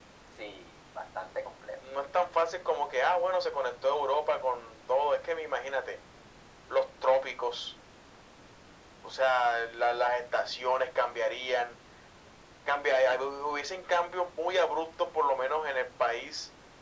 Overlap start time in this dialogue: none

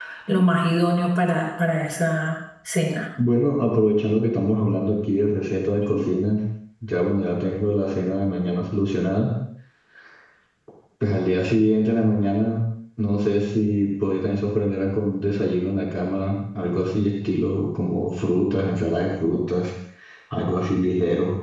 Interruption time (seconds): none

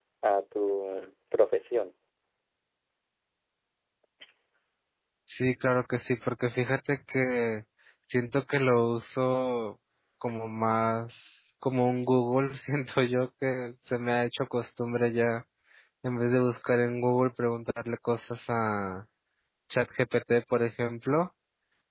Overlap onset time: none

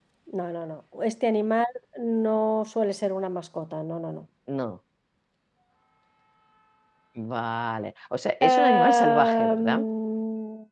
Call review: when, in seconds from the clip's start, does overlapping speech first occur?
8.4 s

